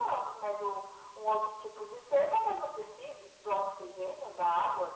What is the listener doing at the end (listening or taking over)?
taking over